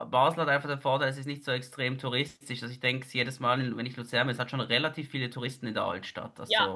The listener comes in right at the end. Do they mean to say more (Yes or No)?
Yes